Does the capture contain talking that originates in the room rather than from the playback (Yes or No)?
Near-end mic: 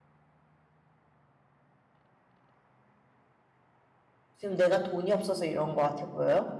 Yes